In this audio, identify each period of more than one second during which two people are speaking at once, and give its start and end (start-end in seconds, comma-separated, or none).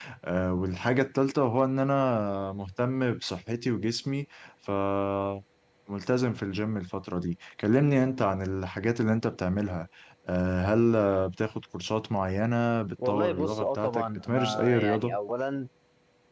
13.1-15.2